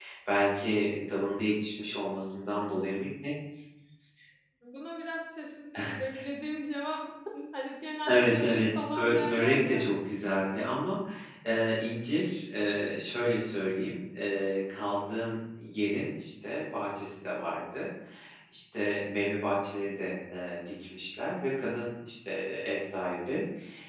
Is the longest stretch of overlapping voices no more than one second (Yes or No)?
No